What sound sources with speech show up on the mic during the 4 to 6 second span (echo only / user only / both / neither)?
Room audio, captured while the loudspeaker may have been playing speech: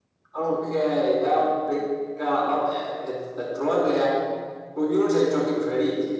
echo only